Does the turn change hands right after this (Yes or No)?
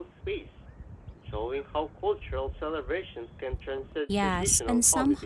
Yes